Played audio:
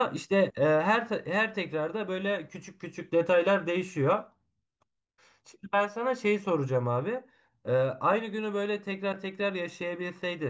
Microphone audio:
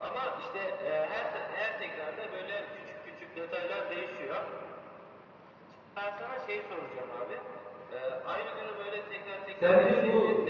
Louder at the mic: user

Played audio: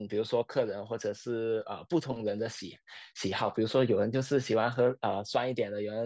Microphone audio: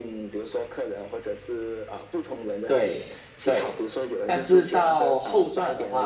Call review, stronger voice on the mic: user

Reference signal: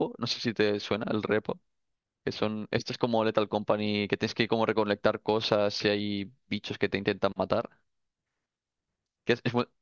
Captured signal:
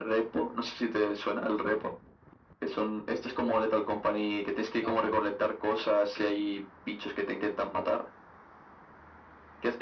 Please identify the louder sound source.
echo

